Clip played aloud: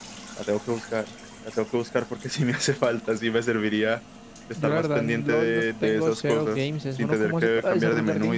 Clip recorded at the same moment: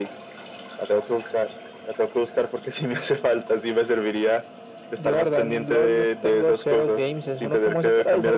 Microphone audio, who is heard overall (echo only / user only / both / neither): echo only